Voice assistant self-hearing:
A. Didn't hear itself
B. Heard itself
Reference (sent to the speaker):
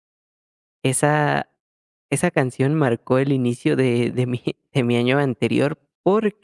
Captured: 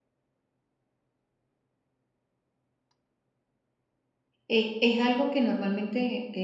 A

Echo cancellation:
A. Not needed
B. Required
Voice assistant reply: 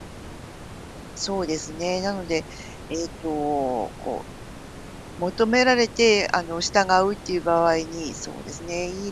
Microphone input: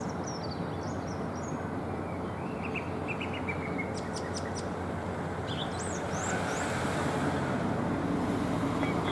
A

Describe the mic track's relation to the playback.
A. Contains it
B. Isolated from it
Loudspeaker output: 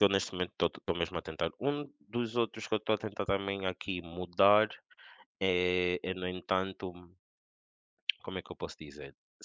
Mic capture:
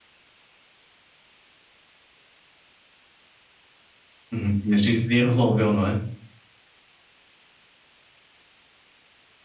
B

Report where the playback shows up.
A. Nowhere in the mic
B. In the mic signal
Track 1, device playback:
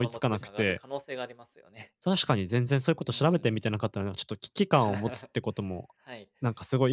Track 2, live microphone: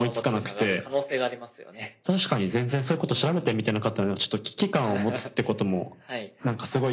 B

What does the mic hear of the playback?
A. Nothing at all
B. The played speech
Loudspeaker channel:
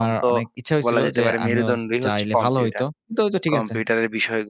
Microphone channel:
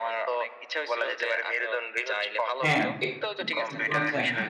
B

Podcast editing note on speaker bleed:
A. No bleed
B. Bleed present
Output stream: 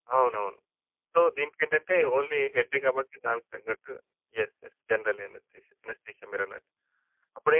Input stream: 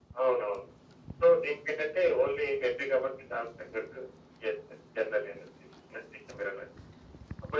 B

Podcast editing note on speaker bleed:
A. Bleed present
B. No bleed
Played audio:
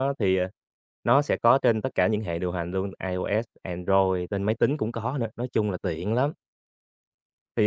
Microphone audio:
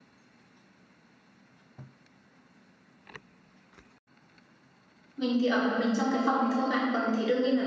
B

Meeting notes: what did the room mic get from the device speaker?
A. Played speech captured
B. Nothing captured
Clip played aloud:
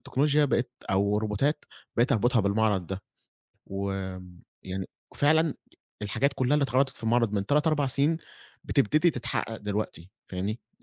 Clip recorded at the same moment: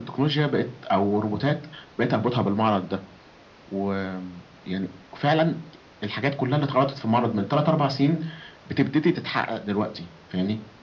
A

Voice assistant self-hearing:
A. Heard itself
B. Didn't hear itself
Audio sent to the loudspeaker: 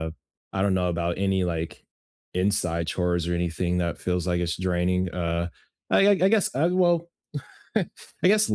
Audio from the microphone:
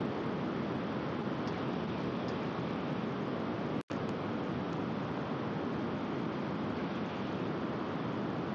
B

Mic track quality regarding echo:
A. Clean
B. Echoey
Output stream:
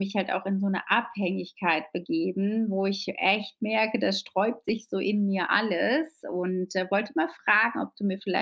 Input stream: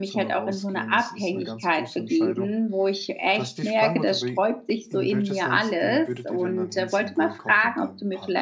B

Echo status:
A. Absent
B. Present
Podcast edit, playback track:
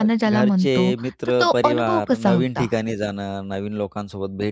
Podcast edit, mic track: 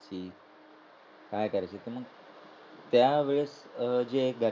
A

